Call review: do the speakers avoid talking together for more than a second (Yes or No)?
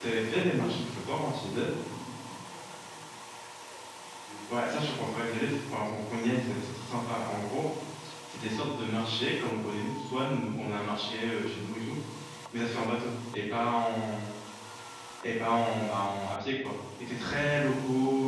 Yes